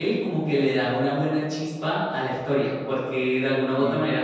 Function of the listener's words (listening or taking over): listening